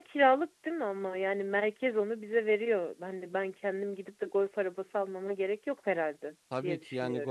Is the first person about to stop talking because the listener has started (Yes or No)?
Yes